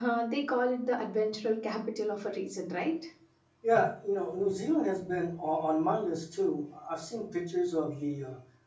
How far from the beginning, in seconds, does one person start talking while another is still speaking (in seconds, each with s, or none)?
none